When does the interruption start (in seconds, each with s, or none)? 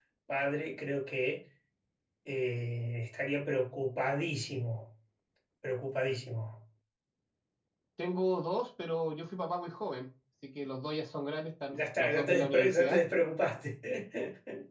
11.7 s